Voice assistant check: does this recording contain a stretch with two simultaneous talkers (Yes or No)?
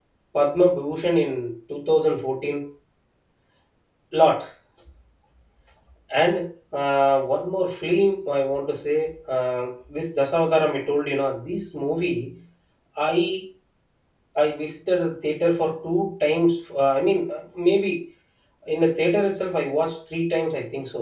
No